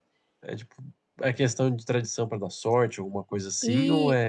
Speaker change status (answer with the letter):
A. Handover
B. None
A